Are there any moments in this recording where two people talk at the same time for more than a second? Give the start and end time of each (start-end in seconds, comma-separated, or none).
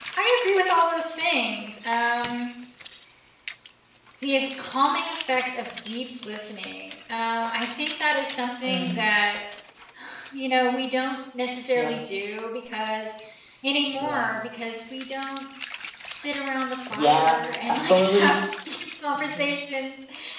16.9-18.3